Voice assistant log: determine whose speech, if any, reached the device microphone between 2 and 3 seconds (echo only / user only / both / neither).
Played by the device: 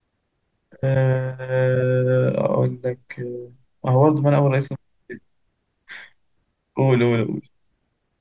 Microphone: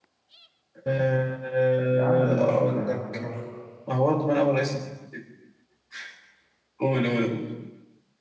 both